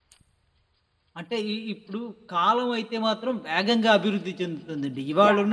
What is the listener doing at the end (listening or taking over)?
listening